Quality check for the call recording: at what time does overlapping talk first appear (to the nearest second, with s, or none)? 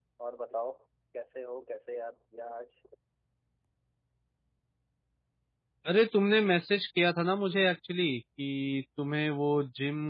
none